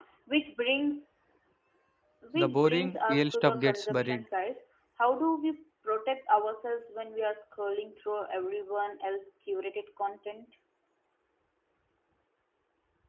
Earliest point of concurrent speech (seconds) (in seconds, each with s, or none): 2.4 s